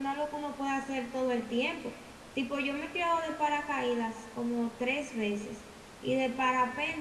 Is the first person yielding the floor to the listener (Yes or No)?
No